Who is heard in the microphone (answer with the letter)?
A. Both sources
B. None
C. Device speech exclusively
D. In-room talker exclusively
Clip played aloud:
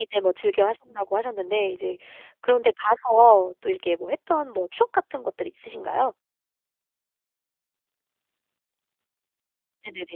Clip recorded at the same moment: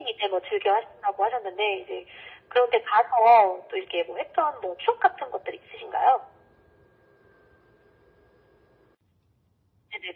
C